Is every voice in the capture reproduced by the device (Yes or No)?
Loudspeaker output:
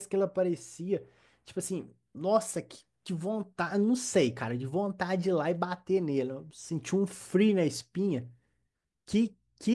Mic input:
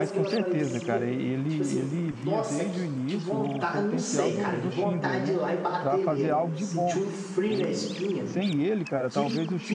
No